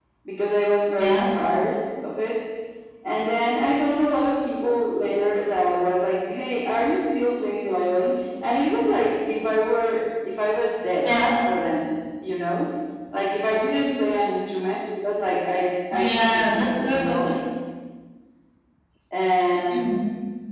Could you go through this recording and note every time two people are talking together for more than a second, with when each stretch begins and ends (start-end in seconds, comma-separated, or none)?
15.9-17.2